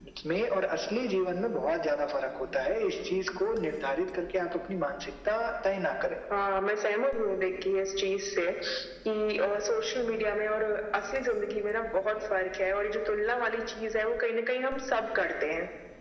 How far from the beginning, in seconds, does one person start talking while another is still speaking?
none

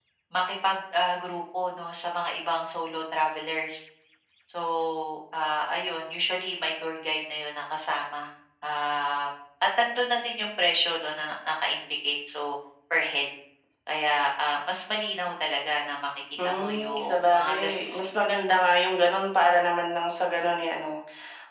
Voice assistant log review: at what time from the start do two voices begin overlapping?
16.4 s

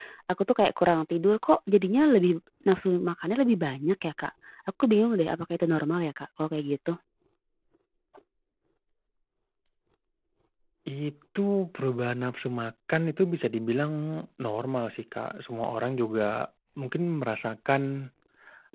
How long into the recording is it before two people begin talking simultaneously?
none

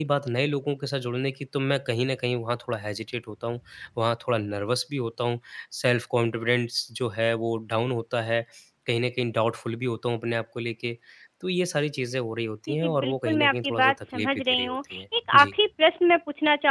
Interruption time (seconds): 12.7 s

